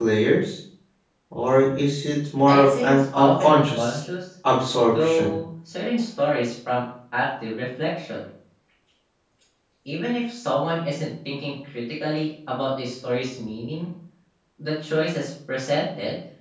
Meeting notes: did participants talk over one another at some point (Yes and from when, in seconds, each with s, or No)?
Yes, from 2.5 s